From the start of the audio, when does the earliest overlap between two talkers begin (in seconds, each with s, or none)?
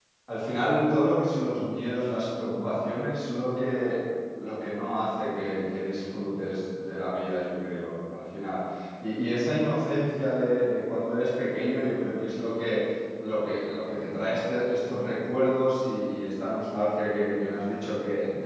none